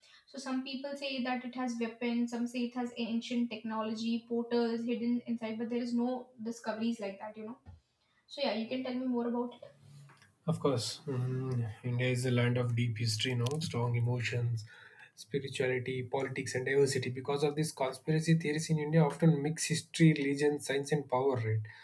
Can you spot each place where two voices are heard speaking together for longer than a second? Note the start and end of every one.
none

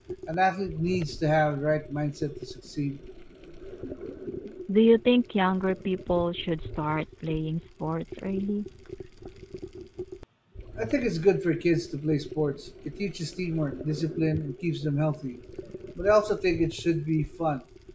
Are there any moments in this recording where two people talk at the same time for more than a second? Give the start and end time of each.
none

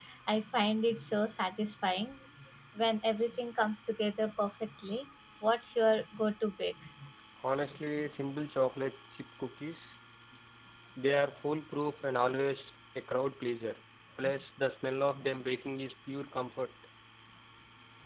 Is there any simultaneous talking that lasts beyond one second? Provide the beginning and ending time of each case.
none

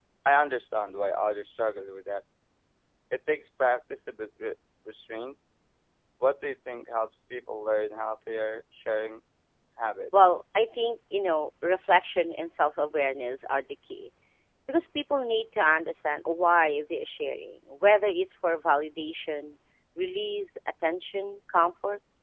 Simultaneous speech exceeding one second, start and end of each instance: none

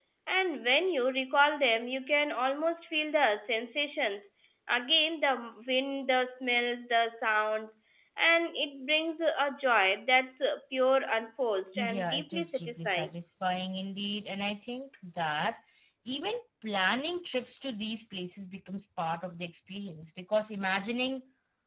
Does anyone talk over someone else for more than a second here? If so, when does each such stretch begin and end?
11.8-13.1

